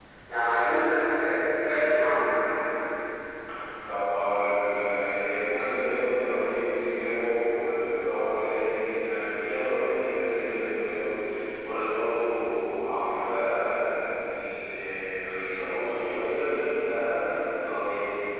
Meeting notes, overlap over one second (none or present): none